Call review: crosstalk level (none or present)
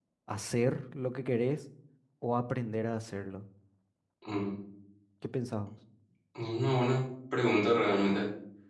none